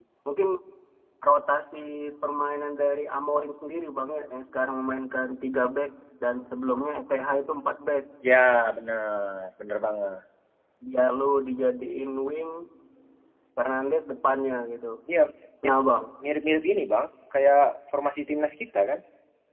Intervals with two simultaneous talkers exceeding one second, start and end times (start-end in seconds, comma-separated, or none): none